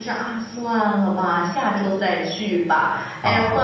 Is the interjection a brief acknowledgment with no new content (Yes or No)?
Yes